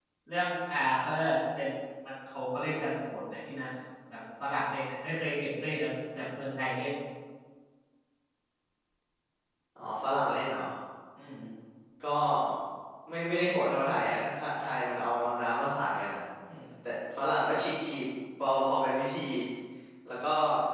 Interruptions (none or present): none